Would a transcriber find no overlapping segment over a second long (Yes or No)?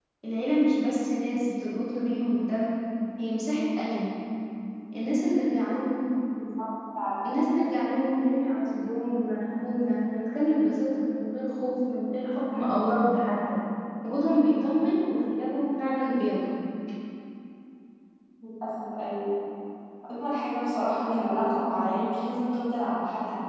Yes